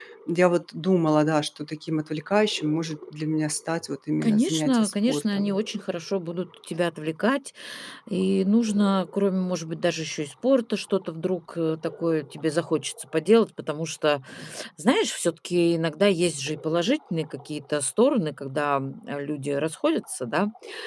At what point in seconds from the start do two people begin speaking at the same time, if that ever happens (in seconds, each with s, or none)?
4.2 s